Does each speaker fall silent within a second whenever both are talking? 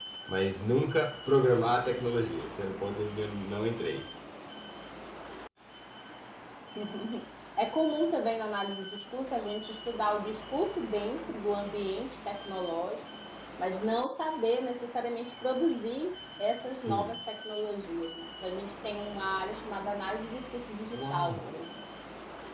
Yes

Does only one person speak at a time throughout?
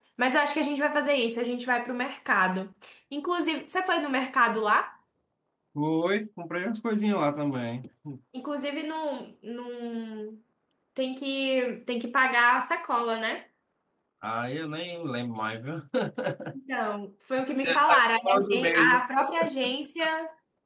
No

